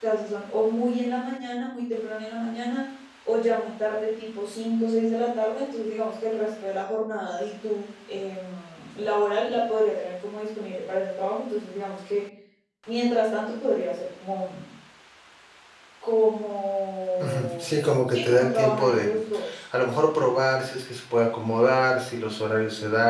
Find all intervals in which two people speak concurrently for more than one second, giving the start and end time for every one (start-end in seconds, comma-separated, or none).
17.2-19.1